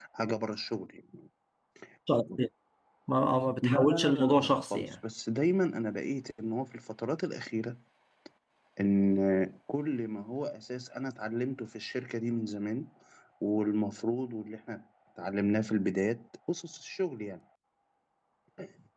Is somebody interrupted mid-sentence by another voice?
Yes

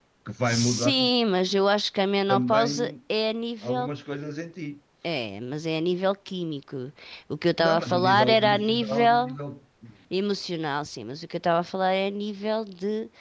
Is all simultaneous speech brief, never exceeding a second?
No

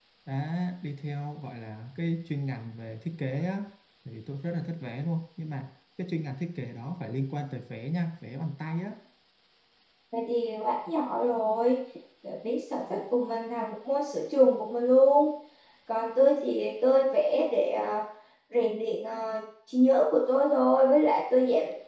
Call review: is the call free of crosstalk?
Yes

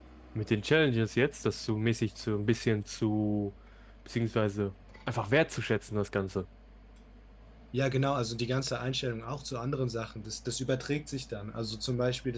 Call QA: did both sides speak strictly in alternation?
Yes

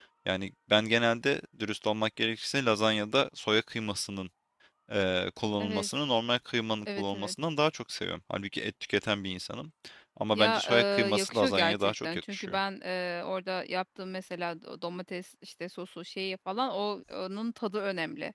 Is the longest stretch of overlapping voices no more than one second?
No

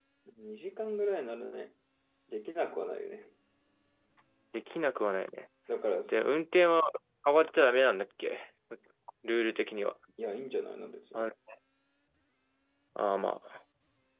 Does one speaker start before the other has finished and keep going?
No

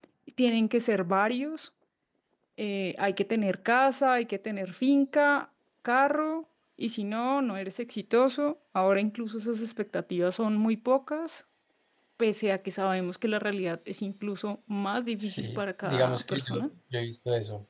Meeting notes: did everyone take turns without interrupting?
No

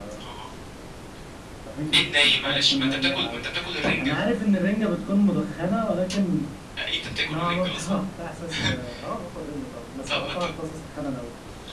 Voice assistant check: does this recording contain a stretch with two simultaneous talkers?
Yes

